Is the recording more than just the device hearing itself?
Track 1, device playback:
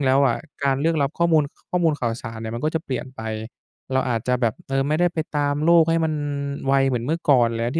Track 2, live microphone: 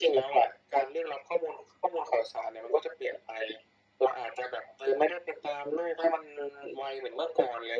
No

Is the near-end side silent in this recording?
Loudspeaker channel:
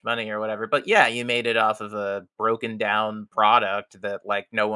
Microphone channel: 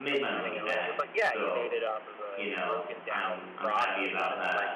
No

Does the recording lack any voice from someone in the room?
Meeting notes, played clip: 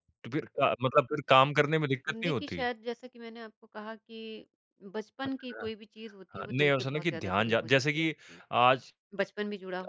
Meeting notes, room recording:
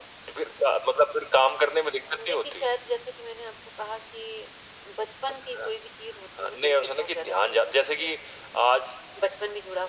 Yes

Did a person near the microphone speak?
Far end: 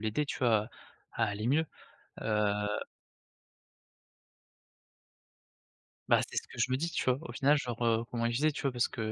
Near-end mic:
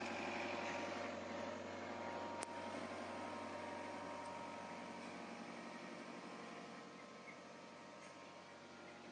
No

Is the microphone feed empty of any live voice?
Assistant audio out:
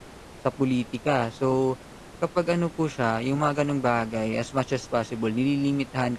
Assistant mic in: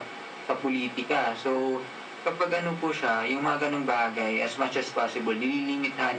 Yes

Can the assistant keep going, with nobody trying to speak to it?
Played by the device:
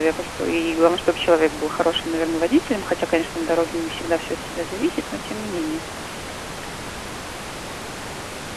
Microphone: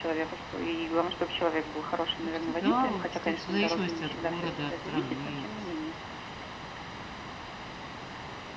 No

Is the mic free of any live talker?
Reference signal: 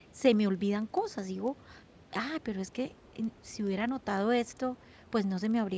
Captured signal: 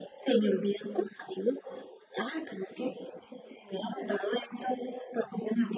Yes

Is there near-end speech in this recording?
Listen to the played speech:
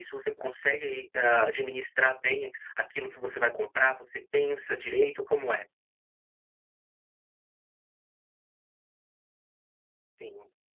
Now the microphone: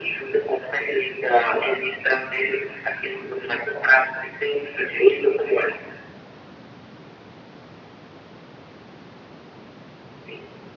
No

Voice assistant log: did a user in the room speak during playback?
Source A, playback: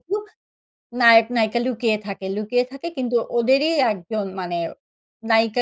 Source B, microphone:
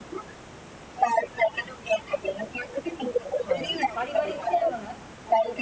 Yes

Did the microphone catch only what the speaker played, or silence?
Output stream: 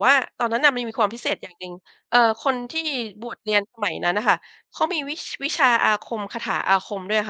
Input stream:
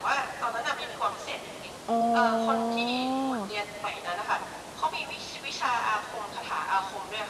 No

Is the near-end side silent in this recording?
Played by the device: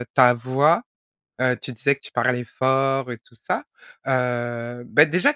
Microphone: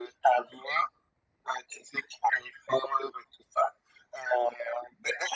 Yes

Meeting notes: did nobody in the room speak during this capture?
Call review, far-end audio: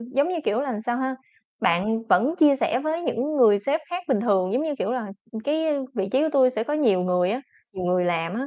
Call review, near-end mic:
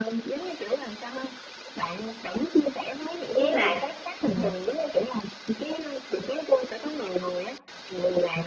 No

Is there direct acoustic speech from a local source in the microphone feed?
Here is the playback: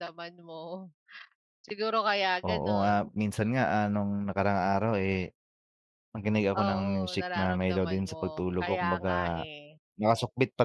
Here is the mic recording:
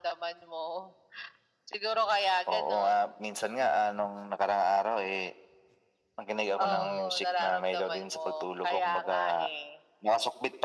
Yes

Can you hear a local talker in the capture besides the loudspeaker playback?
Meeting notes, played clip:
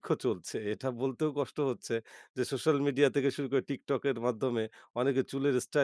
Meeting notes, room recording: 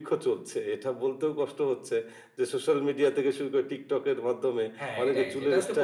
Yes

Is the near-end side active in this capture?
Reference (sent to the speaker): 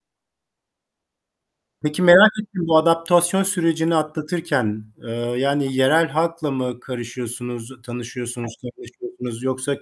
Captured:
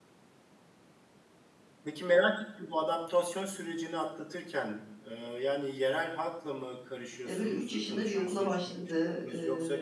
Yes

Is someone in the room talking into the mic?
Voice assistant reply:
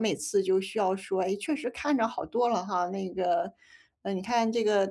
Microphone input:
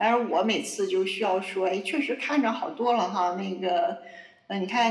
No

